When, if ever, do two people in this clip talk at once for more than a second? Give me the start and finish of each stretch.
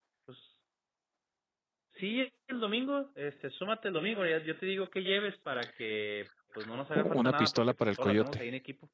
7.0-8.4

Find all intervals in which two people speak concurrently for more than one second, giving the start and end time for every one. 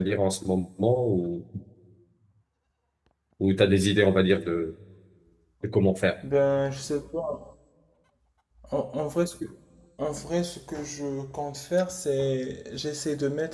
none

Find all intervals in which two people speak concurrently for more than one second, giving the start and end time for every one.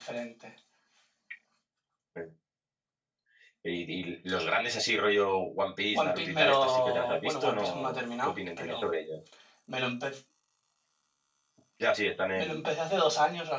6.0-8.9

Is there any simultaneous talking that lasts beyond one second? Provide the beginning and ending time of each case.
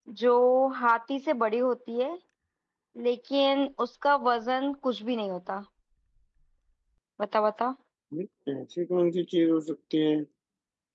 none

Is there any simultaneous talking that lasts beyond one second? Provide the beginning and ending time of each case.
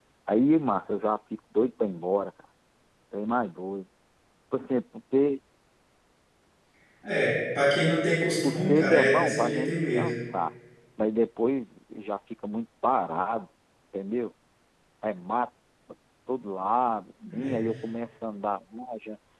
8.4-10.1

